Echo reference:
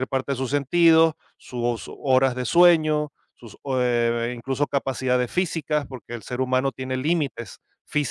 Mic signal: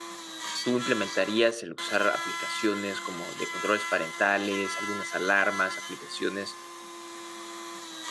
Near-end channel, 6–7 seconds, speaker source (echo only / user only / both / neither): user only